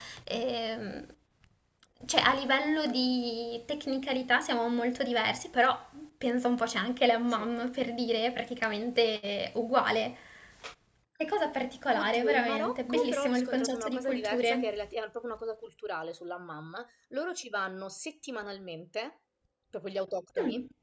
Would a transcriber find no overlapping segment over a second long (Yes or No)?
No